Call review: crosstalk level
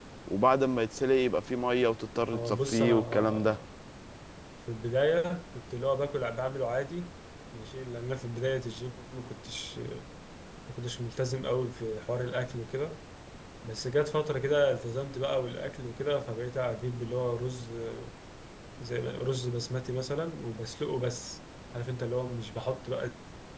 present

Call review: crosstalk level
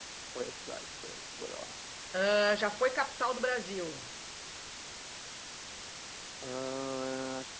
none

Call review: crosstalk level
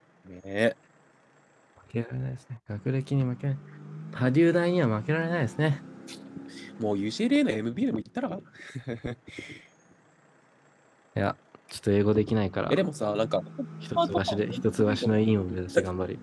present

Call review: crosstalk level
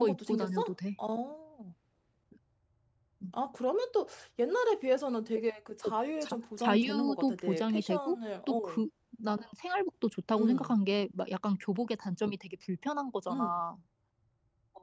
present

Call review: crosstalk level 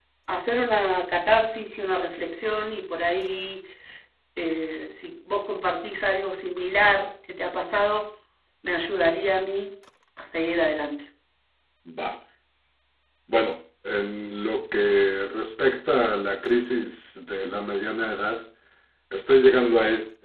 none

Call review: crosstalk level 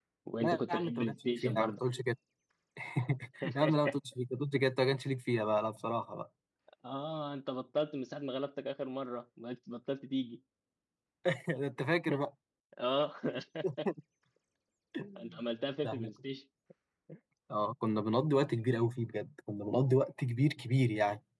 present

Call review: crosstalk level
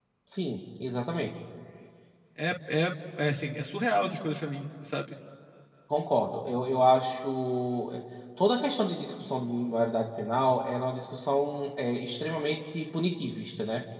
none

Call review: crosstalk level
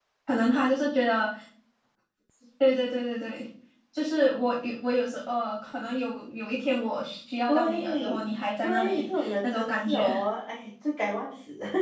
present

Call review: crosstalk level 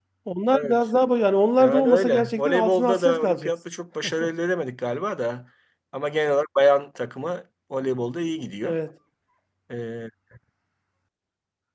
present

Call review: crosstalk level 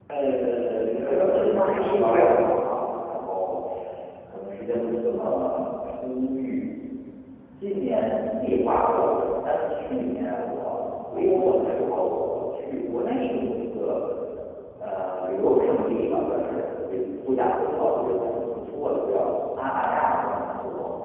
present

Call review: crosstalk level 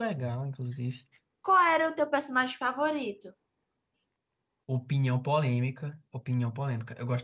none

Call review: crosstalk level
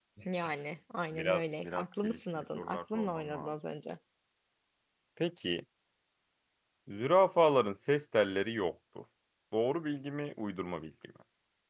present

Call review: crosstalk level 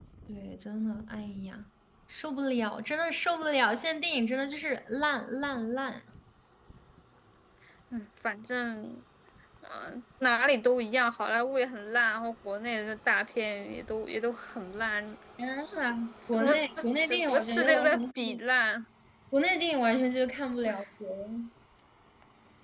present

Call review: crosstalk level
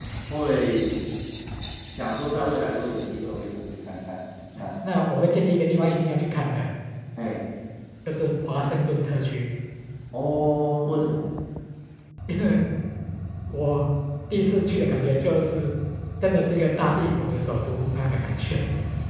none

